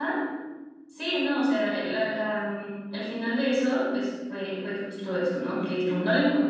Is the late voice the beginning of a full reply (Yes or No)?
No